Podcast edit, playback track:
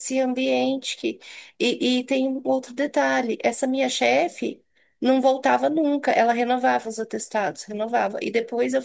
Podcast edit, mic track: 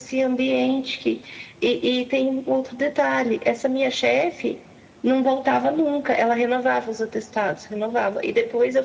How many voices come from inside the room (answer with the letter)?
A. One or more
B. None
B